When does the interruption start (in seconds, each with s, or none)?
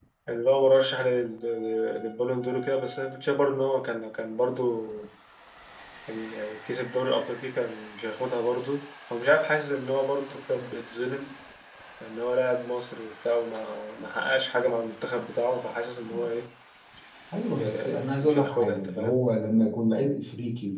17.6 s